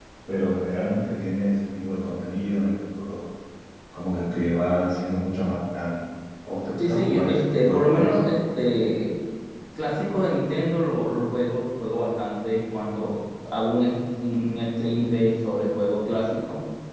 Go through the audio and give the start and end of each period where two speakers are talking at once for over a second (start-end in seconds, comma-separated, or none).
6.9-8.2